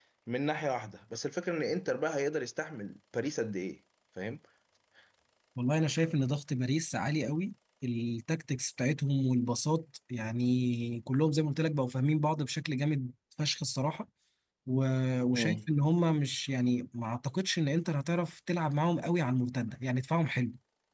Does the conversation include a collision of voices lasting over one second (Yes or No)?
No